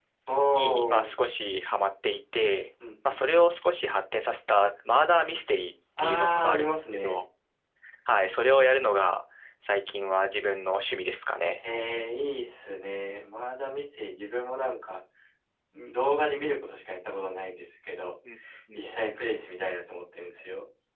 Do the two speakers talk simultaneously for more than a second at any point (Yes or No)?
Yes